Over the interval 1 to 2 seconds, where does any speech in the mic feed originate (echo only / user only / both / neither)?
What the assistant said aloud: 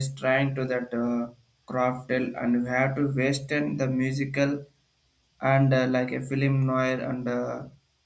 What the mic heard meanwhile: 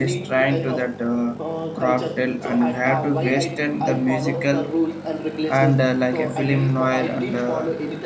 both